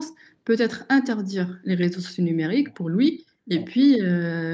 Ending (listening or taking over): listening